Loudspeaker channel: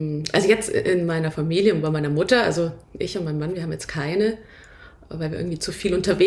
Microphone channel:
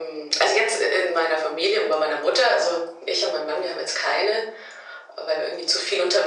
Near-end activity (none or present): none